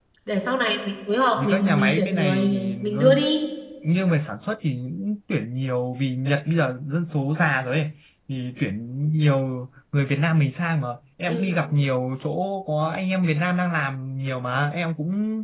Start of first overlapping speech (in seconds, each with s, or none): 1.4 s